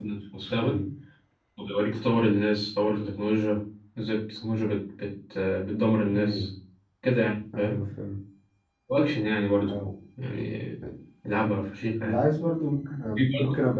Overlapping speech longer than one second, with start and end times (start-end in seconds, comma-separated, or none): none